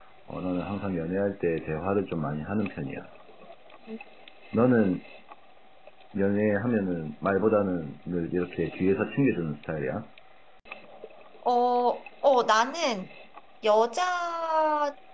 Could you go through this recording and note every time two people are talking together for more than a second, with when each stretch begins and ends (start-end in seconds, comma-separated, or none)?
none